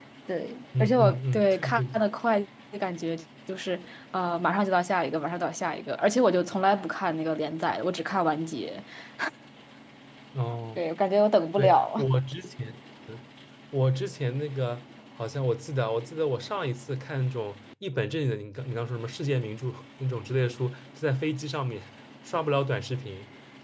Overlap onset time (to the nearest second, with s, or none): 1 s